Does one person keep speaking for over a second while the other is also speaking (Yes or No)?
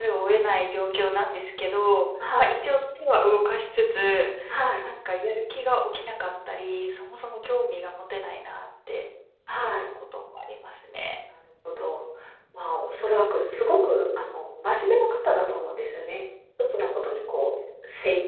No